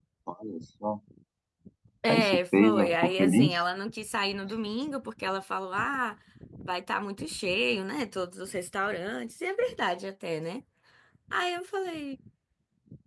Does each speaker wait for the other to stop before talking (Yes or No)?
No